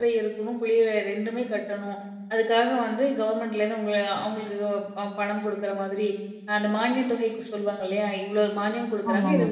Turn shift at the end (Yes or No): No